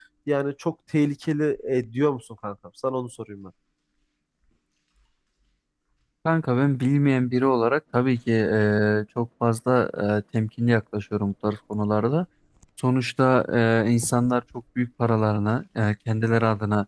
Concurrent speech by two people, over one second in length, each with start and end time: none

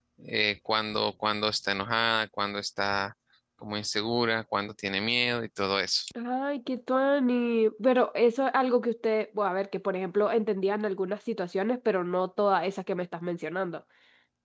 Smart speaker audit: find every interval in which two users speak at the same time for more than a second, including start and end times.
none

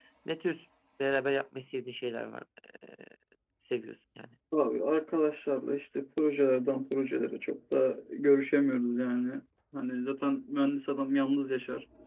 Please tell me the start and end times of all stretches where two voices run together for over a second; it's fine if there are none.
none

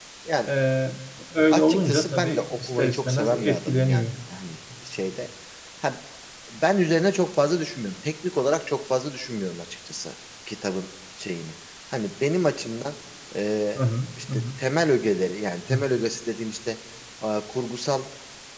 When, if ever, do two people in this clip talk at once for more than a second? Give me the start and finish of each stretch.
1.5-4.1

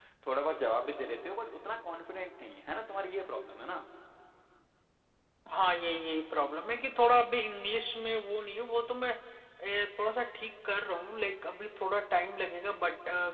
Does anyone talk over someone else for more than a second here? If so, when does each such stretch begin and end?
none

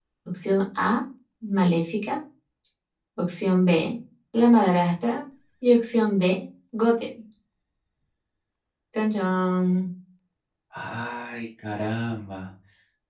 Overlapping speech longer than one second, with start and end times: none

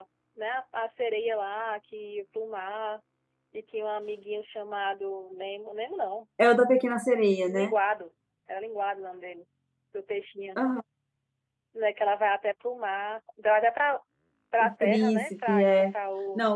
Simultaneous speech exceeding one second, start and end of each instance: 14.6-15.9

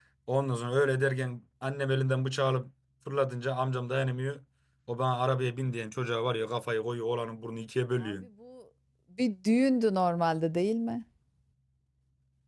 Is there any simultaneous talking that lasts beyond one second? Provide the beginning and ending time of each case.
none

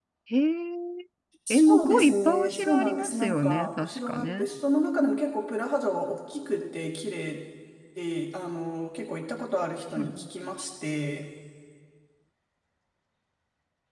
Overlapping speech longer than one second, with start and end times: 1.5-4.5

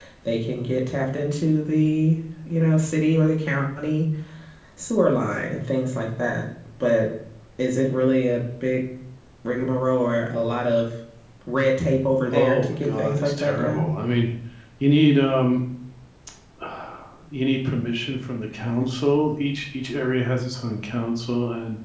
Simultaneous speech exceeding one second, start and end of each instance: 12.3-13.9

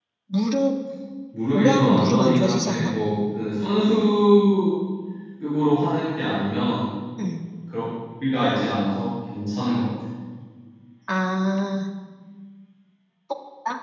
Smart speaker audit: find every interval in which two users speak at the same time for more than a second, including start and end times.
1.5-2.9

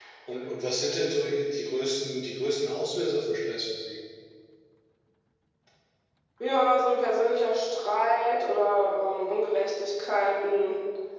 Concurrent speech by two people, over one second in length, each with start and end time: none

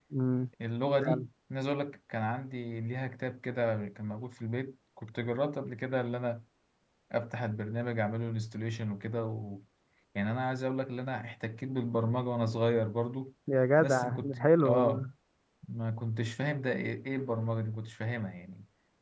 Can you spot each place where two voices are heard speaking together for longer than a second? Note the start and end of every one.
13.8-15.1

